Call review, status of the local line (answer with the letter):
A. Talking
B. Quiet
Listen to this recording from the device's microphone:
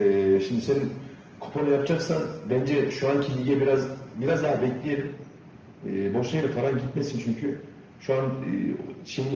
B